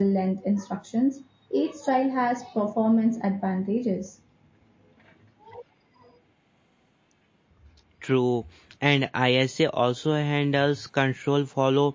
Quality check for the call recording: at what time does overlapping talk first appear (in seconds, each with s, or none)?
none